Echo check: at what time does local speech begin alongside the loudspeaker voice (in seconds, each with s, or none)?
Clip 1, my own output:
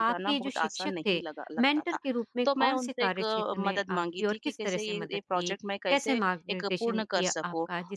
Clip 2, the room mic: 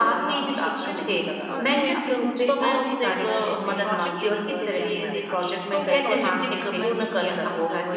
0.9 s